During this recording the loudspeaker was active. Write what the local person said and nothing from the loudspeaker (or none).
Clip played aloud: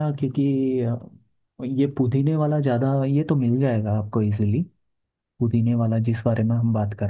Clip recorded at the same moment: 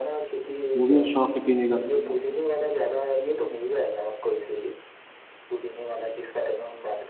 वो भी शौक है पीने का